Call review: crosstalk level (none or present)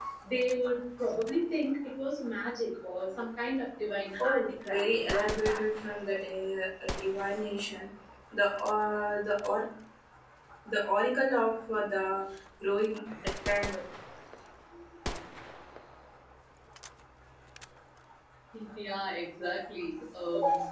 present